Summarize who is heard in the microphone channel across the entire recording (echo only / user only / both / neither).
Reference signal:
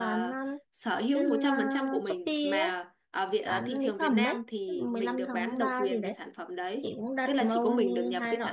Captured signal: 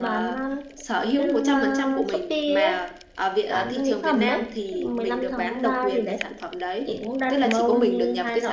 echo only